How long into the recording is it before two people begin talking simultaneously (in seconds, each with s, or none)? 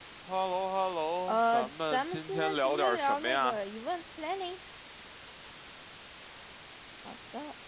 1.3 s